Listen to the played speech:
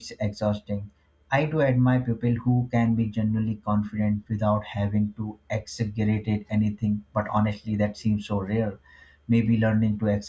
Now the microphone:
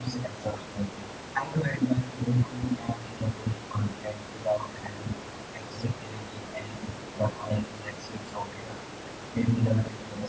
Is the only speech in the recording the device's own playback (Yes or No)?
Yes